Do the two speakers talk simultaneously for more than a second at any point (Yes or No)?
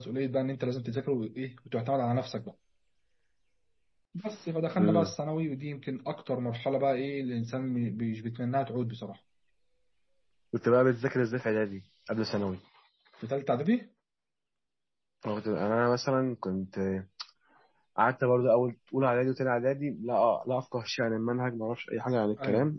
No